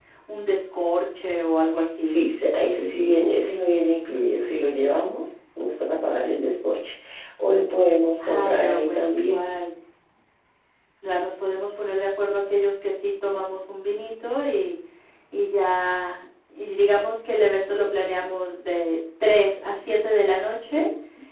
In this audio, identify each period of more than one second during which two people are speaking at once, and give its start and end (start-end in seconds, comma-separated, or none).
8.2-9.4